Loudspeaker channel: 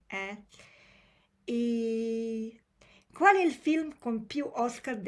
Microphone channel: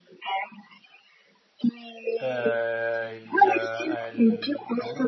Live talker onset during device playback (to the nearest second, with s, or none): 2 s